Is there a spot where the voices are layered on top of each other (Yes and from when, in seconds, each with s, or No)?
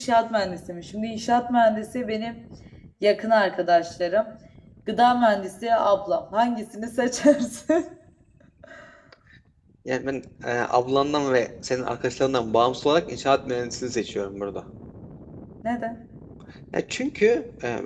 No